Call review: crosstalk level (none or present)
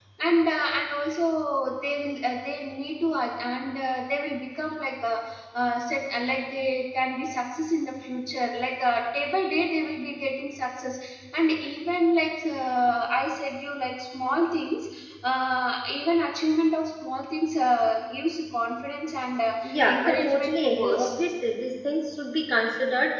present